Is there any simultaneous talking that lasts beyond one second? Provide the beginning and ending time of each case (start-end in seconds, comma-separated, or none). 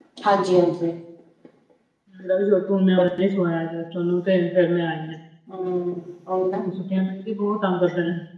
none